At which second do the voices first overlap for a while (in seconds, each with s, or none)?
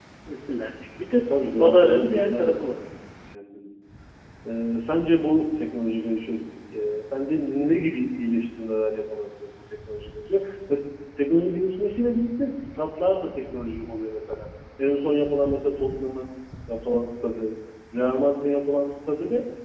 1.6 s